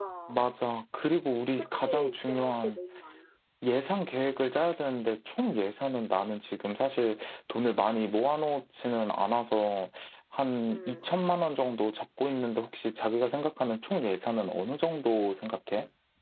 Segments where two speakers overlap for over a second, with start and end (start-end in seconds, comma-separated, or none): 1.5-2.8